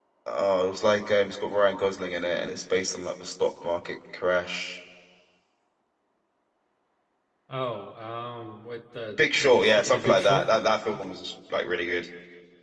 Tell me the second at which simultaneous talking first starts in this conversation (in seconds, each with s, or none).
9.1 s